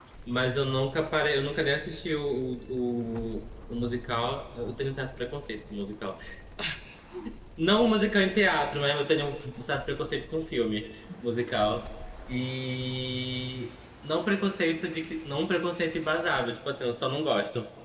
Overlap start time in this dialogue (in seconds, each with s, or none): none